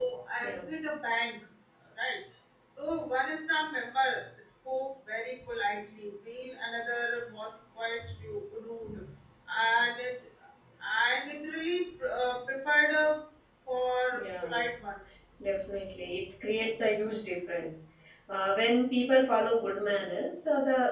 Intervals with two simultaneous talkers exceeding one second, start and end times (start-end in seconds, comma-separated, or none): none